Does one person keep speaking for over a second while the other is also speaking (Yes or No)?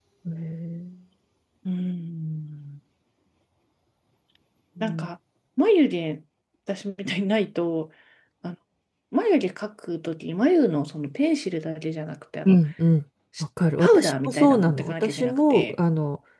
Yes